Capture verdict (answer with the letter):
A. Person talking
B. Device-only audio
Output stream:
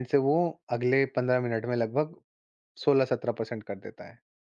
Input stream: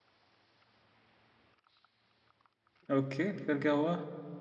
A